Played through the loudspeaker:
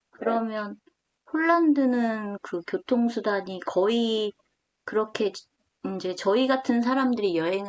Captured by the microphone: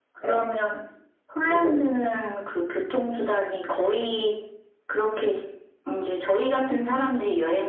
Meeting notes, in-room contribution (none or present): present